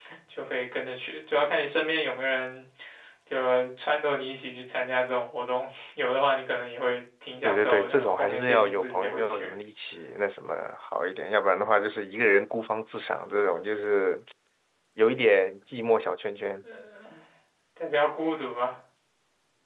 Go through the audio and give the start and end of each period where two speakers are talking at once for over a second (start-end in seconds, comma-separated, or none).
7.4-9.5